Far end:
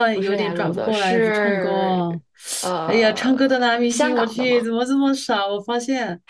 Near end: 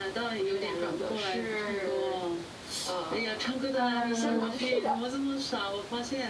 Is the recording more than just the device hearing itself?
Yes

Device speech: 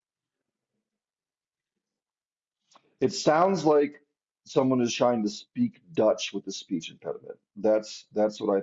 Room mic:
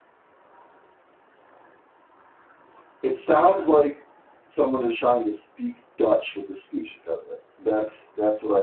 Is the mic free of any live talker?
Yes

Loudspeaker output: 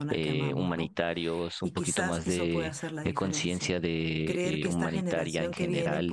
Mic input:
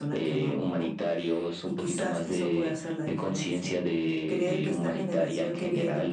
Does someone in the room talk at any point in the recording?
No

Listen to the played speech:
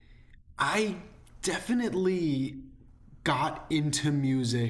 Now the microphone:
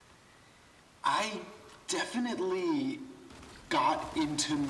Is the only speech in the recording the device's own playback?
Yes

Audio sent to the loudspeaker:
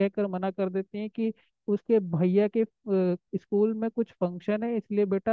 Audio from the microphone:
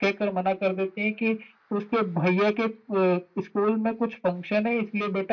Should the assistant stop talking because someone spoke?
No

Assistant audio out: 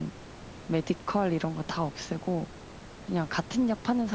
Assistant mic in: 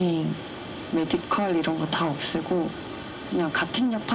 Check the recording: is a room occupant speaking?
No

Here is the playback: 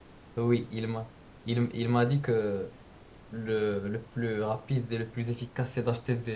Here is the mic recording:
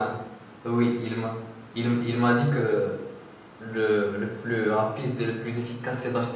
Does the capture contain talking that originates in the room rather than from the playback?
No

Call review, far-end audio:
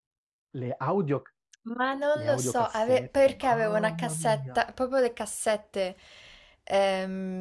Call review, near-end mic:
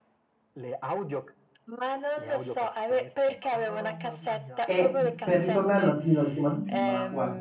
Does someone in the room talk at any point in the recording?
Yes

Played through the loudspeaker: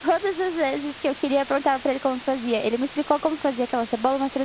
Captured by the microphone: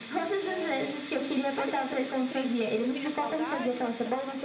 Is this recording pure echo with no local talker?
No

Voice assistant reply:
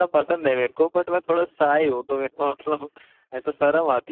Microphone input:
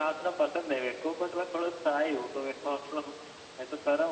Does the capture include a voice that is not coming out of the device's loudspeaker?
No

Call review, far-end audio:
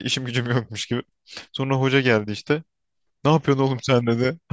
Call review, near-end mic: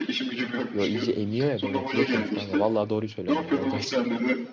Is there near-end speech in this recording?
Yes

